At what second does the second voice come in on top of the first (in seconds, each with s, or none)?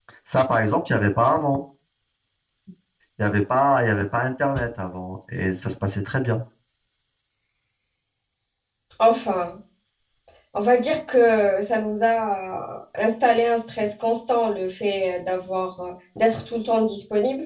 none